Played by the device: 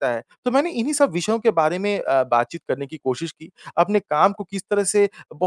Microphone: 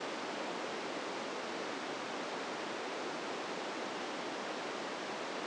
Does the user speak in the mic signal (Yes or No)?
No